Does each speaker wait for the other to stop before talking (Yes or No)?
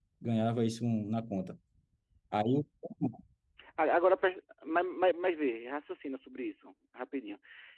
Yes